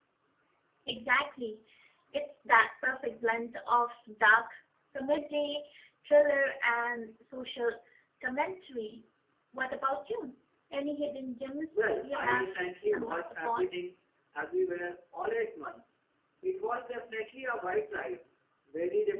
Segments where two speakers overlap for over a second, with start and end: 11.7-13.7

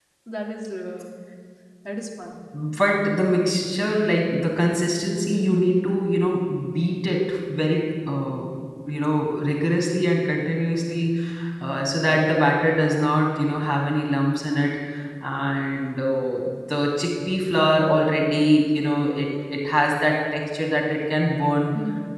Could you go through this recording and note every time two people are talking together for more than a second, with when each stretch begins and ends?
none

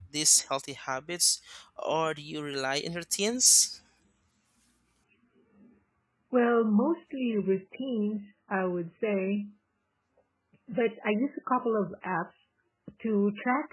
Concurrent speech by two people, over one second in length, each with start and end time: none

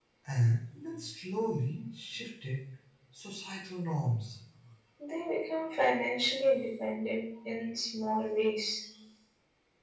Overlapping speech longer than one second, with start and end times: none

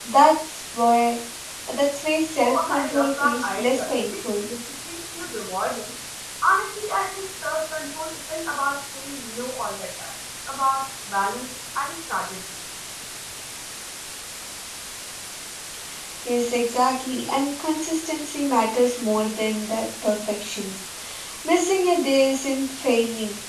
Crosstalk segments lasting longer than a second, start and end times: 2.4-4.4

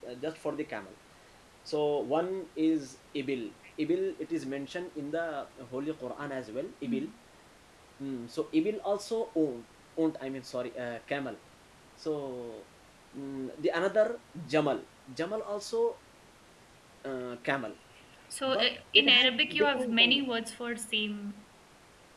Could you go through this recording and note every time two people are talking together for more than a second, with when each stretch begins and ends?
18.5-20.2

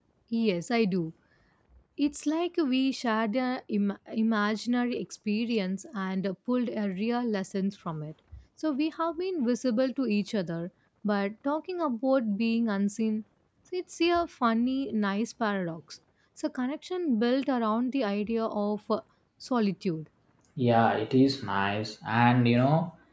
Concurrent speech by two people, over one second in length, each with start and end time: none

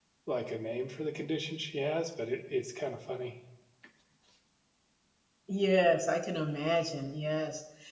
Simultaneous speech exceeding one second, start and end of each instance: none

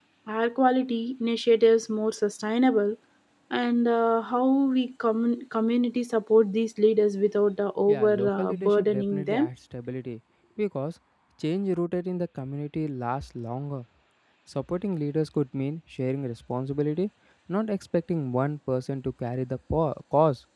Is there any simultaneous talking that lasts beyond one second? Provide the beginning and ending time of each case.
7.9-9.5

